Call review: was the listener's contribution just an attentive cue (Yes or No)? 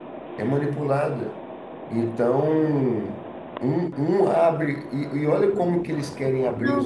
No